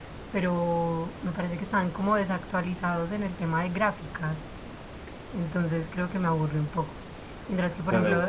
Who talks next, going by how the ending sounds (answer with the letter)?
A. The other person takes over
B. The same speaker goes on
A